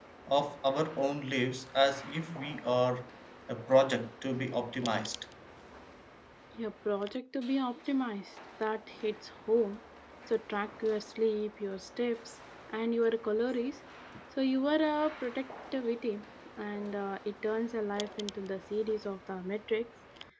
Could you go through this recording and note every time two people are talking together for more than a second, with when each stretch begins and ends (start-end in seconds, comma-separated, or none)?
none